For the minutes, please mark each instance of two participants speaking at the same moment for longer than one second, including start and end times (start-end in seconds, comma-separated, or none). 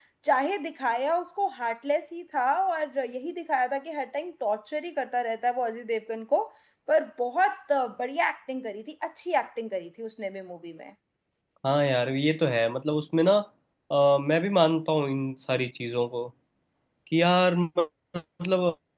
none